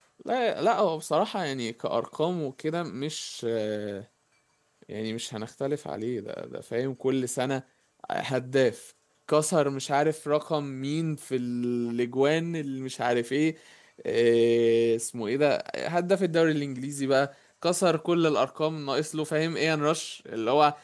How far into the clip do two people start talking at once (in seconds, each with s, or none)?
none